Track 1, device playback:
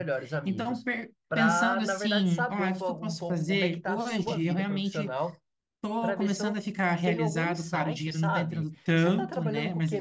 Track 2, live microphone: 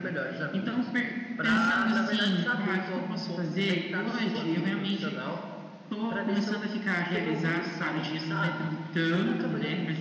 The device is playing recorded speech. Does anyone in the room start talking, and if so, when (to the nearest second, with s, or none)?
none